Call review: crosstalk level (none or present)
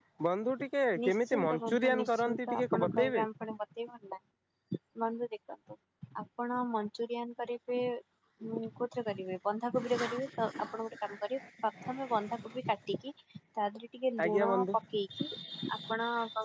present